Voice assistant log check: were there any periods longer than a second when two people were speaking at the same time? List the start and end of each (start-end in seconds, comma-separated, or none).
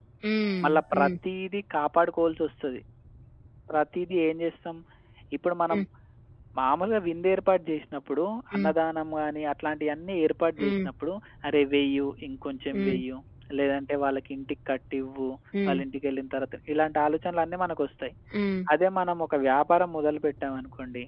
none